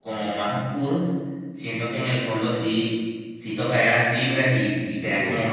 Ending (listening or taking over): listening